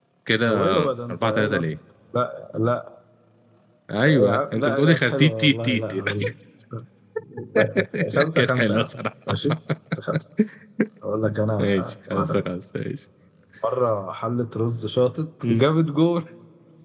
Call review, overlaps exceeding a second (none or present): present